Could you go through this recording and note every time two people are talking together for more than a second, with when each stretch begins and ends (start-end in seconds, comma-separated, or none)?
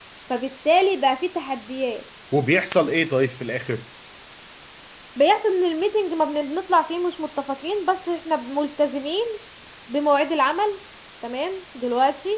none